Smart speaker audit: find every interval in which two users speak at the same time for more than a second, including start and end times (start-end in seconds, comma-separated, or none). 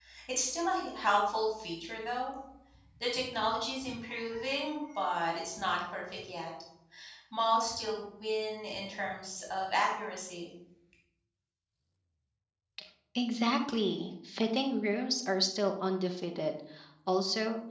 none